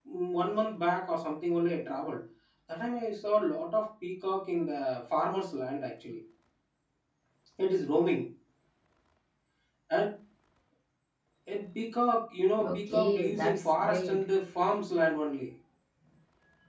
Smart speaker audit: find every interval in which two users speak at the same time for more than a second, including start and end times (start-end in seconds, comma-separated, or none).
12.7-14.2